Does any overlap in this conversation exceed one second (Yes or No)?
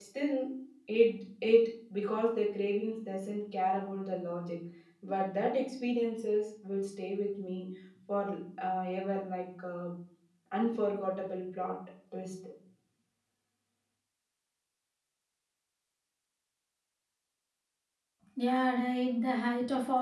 No